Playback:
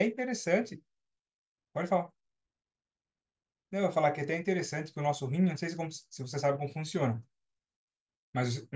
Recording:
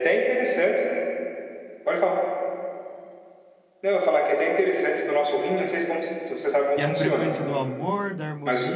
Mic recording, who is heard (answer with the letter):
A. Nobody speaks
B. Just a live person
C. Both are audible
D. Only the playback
C